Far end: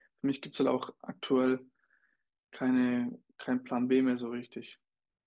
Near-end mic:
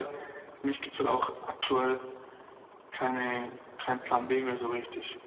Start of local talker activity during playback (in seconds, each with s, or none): none